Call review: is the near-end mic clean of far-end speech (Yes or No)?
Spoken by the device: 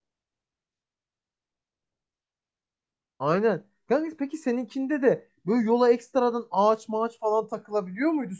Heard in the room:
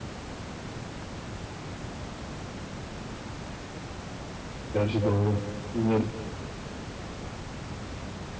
Yes